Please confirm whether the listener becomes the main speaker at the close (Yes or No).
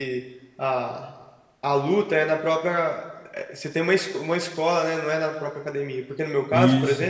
No